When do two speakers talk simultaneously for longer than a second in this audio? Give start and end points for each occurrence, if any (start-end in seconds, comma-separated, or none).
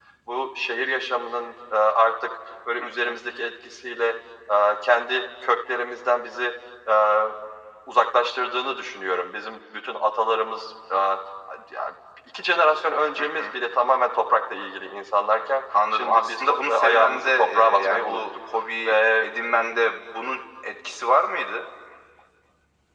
15.9-18.2